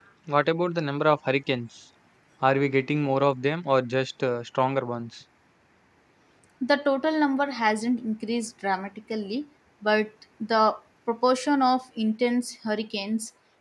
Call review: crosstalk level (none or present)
none